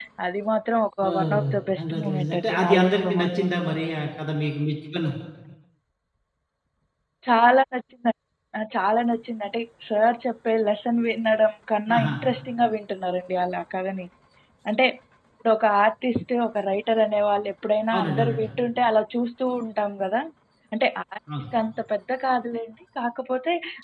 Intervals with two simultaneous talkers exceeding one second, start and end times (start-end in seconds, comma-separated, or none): 1.1-3.5